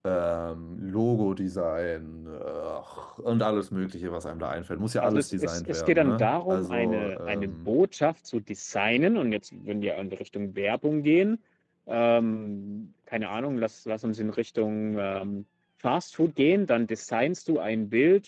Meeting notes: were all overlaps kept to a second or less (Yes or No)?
No